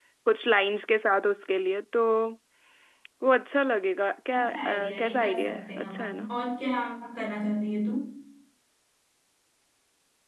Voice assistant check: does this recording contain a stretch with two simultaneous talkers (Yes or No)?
Yes